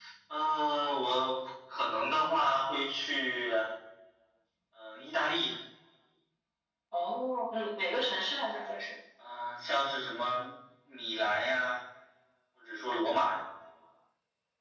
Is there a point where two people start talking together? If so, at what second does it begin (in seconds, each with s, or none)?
none